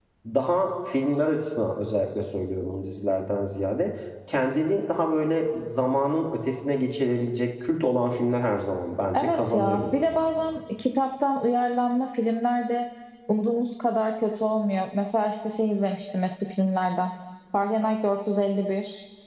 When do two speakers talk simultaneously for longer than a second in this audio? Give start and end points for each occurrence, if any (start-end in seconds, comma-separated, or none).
9.1-10.5